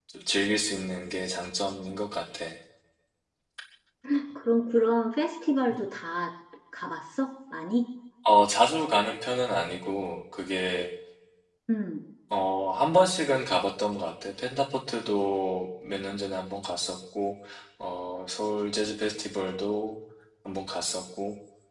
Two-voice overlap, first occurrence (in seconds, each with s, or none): none